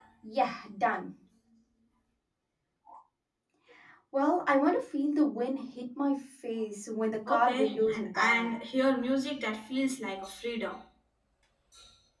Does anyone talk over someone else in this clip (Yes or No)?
Yes